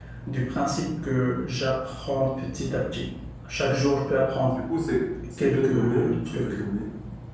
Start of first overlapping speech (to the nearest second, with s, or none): 5 s